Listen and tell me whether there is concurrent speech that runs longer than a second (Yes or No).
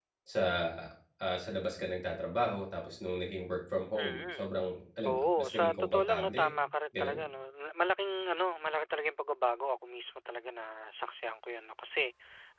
Yes